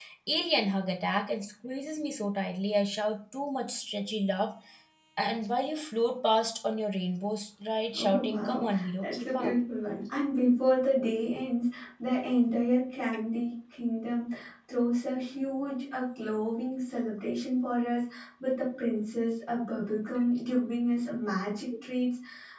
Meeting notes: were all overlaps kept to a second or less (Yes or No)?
No